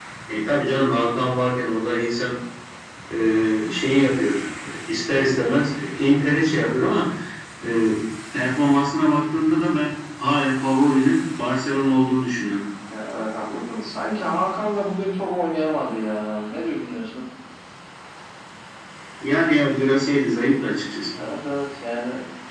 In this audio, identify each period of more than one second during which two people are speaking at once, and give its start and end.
none

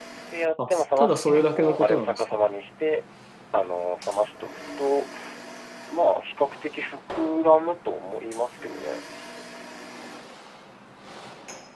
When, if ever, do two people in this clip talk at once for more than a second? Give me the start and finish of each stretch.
0.7-2.2

